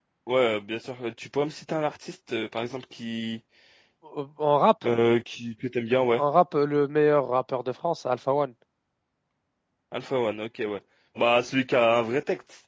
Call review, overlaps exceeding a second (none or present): none